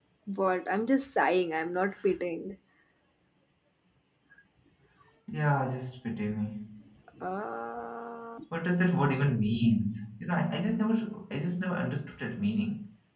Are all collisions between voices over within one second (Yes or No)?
Yes